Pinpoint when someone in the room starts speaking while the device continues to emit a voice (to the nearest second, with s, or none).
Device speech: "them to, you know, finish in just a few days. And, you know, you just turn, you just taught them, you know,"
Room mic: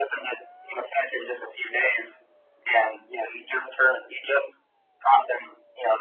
none